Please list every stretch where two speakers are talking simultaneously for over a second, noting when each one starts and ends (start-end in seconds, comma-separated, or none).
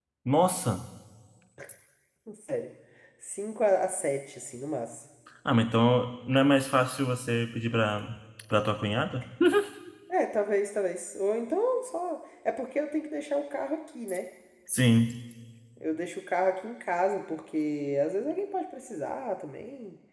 none